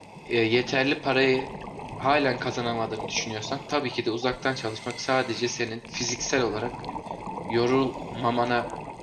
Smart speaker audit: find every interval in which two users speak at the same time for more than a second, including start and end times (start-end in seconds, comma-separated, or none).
none